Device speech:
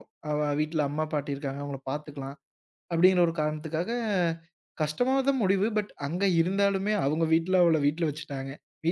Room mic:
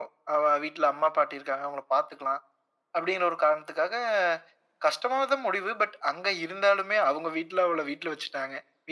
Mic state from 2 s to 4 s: echo only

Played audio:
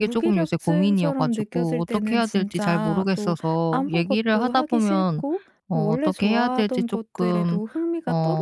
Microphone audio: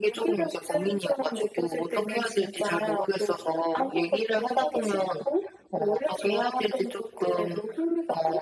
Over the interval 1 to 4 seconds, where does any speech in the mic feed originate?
echo only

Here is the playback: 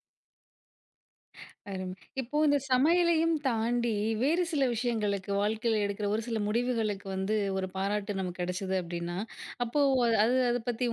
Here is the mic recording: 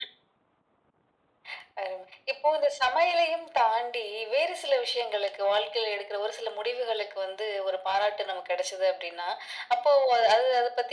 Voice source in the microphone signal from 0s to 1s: neither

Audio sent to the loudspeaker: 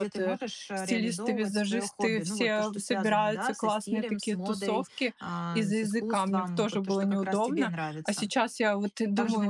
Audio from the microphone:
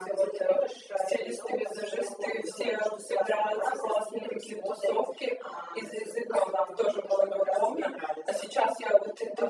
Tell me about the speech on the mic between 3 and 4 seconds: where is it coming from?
echo only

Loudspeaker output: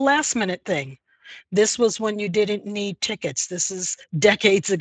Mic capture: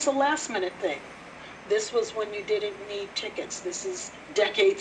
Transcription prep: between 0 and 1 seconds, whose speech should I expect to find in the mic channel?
echo only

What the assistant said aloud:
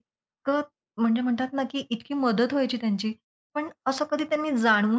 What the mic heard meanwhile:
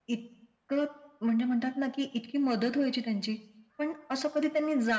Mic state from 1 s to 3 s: echo only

